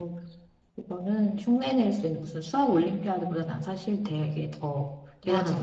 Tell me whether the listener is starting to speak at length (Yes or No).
Yes